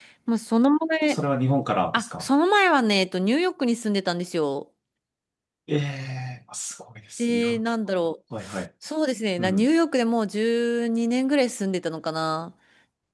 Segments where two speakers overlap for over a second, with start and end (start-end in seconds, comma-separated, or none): none